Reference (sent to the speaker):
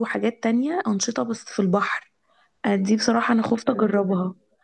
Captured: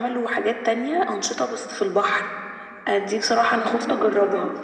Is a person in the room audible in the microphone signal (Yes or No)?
Yes